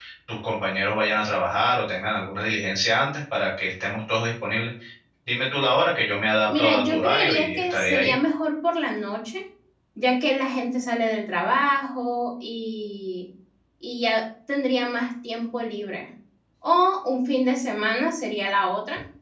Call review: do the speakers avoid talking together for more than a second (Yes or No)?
No